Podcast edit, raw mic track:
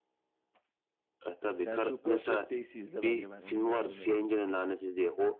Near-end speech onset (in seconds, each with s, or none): 1.5 s